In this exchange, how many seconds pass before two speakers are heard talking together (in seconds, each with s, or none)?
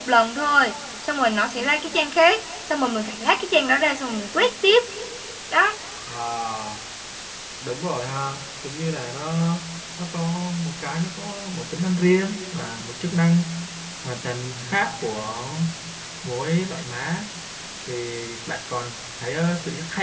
none